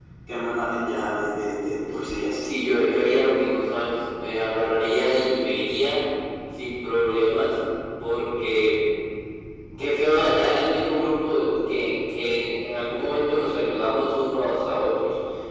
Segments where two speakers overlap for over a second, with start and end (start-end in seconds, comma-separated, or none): none